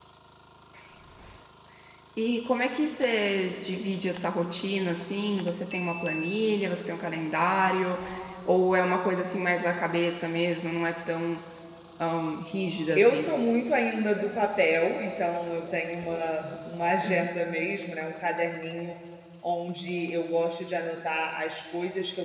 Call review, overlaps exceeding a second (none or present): none